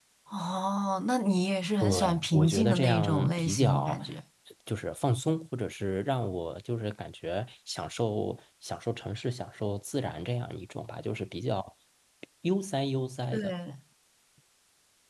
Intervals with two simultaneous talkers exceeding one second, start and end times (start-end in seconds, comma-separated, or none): 1.8-4.0